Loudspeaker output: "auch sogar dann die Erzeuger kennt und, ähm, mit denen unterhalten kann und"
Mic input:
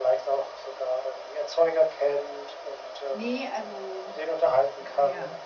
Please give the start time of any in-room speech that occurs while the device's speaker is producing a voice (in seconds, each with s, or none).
3.1 s